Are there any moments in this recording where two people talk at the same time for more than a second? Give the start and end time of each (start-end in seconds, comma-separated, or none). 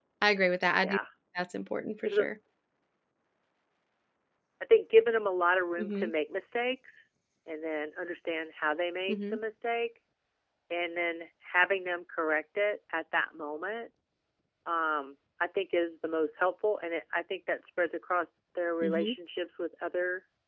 none